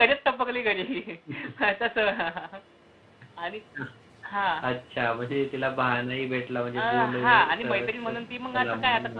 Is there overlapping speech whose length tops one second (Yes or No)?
Yes